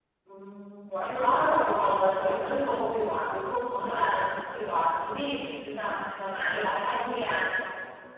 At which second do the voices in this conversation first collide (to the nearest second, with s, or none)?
1 s